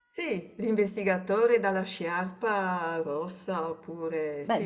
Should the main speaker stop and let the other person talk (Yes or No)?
Yes